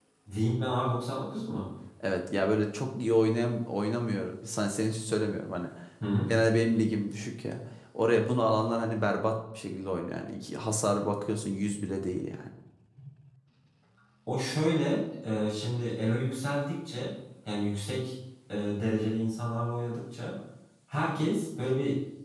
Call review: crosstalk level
none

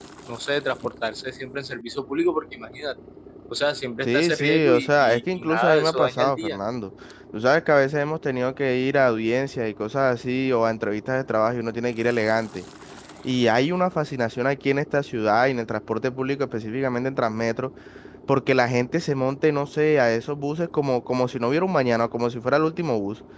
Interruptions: present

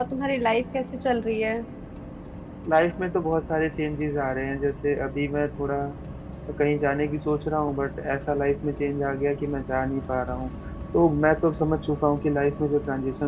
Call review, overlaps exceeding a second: none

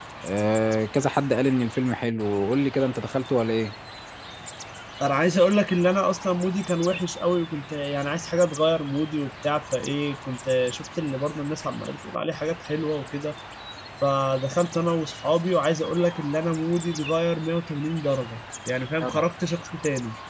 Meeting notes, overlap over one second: none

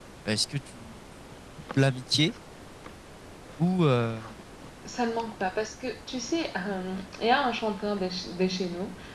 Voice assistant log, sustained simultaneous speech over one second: none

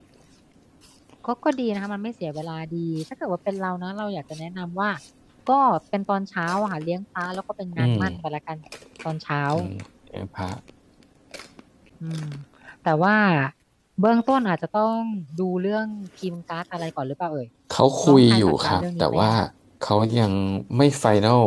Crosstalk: present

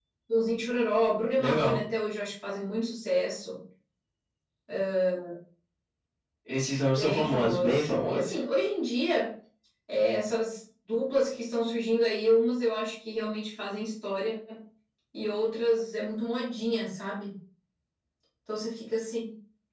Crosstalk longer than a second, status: present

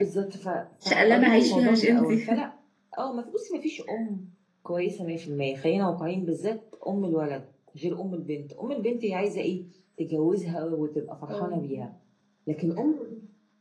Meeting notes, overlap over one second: present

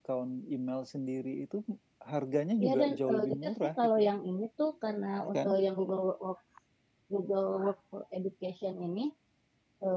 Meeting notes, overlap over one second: present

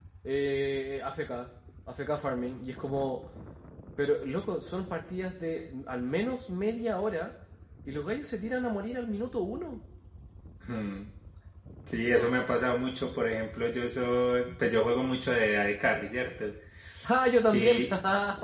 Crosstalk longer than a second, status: none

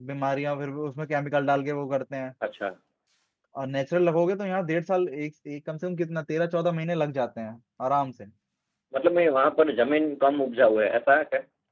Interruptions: none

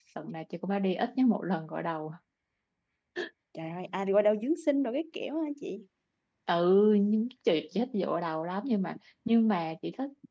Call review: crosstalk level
none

